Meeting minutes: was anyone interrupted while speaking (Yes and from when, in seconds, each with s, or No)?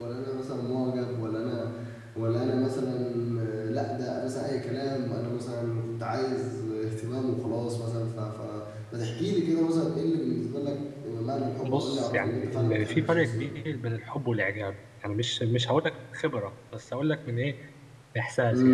Yes, from 11.6 s